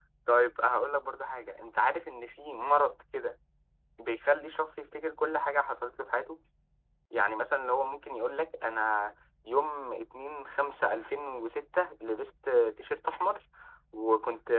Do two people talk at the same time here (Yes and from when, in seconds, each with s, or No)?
No